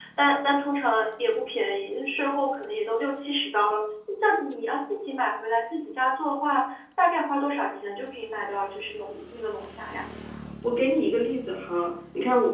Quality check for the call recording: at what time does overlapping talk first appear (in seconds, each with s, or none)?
none